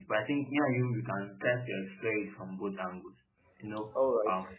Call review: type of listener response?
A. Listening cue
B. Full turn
A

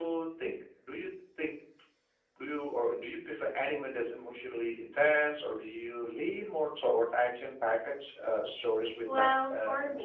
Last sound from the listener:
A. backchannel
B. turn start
B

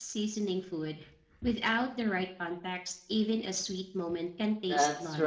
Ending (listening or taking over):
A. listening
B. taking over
B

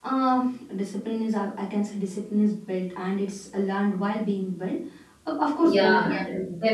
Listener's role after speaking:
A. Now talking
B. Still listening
A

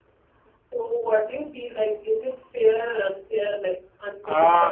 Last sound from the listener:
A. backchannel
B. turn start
B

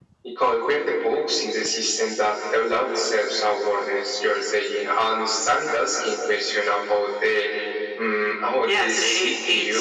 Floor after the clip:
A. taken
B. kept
A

